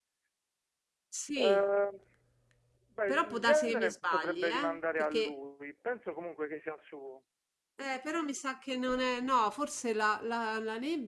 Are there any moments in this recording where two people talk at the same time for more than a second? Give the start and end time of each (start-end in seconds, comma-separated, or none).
3.1-5.3